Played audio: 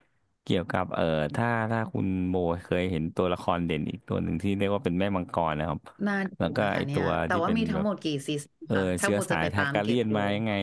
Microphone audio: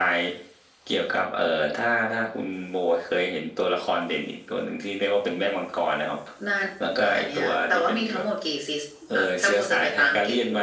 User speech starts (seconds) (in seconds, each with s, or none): none